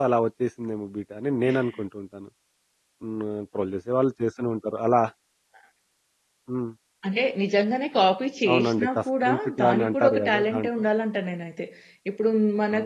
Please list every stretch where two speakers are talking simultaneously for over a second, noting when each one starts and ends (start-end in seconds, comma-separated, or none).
8.5-10.7